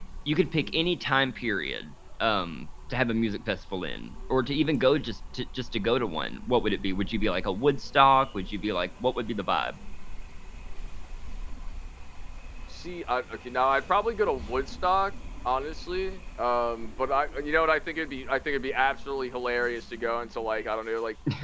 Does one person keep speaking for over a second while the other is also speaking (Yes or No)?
No